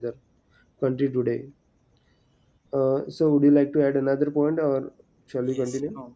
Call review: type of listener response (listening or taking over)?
taking over